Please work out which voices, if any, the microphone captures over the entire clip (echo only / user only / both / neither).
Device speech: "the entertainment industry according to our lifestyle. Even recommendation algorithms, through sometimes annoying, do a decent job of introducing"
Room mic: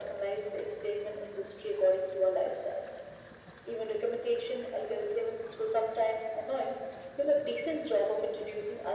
echo only